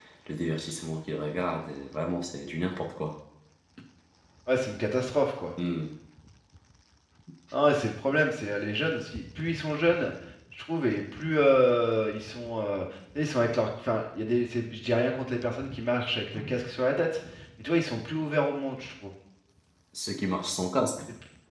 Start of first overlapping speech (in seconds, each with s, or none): none